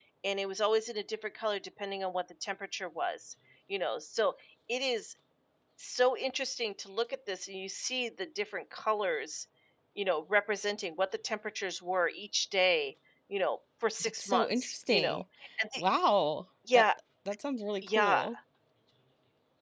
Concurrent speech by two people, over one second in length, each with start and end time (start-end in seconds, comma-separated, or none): 14.0-15.2